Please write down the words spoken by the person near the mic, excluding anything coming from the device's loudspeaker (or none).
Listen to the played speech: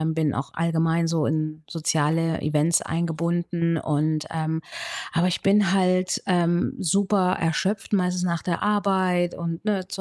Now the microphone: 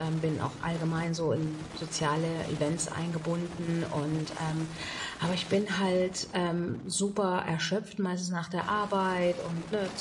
none